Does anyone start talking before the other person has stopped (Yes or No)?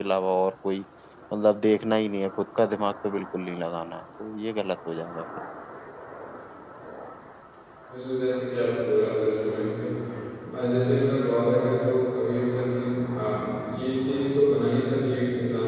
No